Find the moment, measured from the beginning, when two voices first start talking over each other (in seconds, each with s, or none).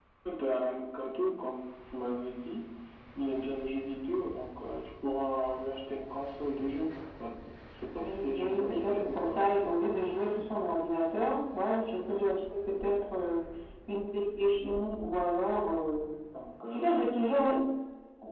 8.0 s